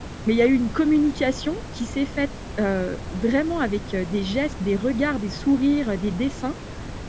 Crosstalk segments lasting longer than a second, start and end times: none

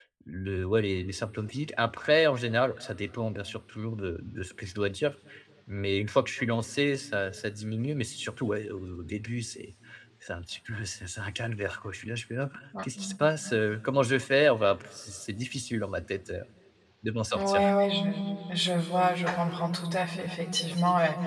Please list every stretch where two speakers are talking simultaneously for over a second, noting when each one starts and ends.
none

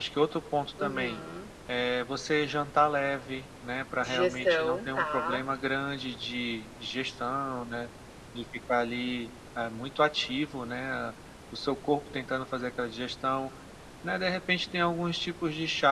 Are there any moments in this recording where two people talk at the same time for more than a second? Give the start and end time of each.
4.0-5.4

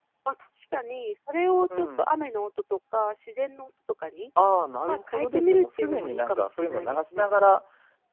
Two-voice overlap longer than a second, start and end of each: 4.9-7.3

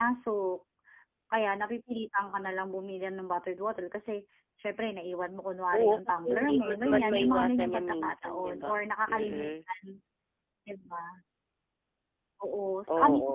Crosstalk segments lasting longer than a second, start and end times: 5.7-9.5

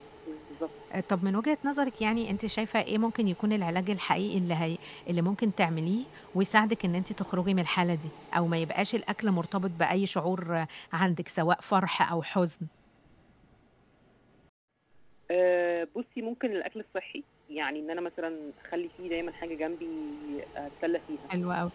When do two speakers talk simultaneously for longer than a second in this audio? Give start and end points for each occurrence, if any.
none

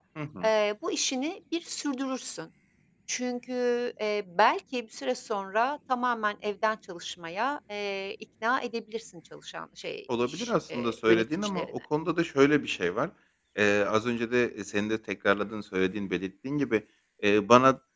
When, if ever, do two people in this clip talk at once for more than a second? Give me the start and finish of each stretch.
10.2-11.7

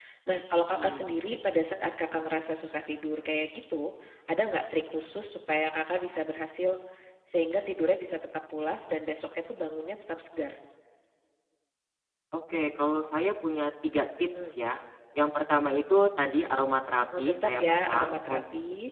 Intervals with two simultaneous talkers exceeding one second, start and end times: 17.2-18.4

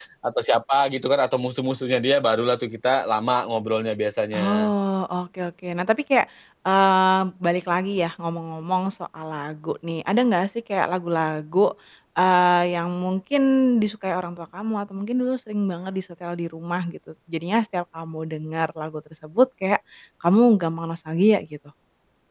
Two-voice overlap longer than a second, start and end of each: none

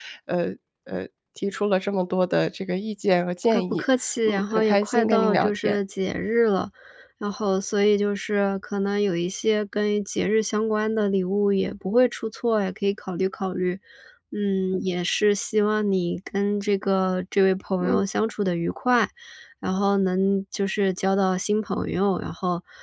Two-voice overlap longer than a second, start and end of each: 4.3-5.8

